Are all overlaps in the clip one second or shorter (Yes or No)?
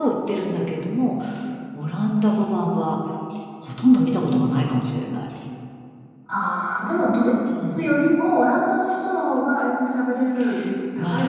Yes